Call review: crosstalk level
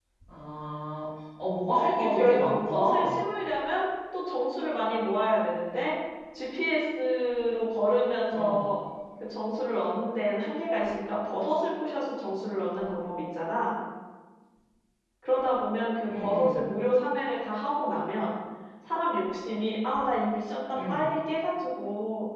present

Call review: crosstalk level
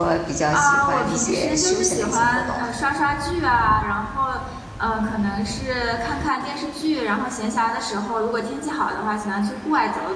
present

